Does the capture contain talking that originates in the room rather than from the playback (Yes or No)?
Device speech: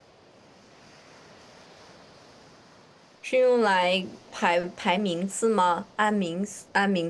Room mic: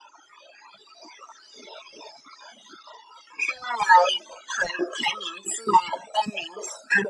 No